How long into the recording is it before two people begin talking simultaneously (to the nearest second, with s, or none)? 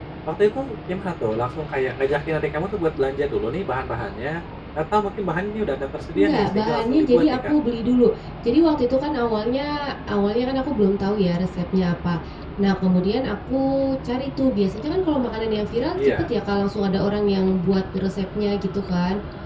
6 s